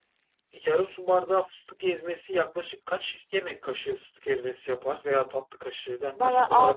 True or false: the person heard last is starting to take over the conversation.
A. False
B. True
B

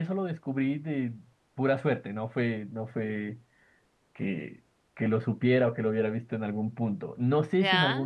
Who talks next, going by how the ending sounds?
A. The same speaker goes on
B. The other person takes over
A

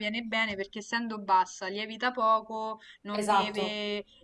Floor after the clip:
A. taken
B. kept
B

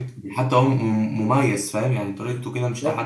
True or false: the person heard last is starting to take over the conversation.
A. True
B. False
A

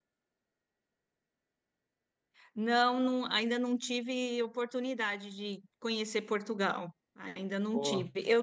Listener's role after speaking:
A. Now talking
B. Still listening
B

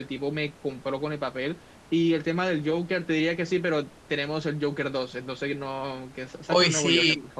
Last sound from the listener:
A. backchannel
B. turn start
B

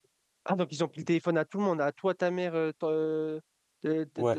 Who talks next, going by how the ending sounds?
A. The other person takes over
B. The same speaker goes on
A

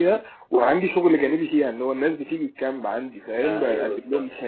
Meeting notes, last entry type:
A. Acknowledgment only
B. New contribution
A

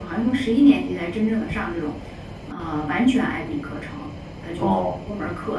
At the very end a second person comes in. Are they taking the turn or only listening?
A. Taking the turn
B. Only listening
B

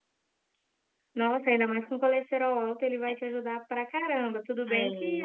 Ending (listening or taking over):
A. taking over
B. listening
B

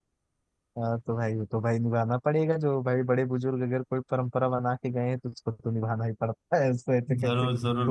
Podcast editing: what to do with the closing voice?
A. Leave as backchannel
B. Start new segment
B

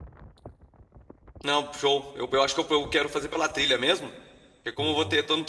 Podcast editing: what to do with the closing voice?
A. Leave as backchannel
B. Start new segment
A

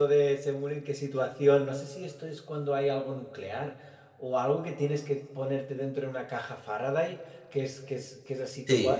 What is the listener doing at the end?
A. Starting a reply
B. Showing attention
A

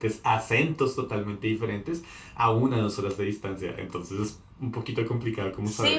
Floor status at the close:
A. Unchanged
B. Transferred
B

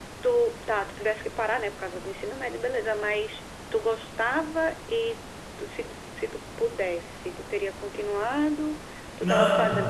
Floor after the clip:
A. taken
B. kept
B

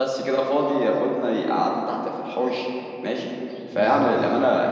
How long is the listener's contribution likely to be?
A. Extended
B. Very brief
B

